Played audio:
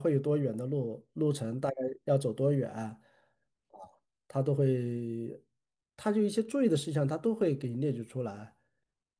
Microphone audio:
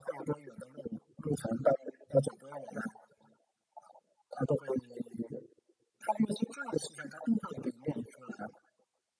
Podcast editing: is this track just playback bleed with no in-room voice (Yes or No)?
Yes